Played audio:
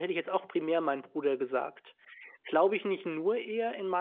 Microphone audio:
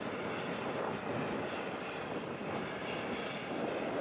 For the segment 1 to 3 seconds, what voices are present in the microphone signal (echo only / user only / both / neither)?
neither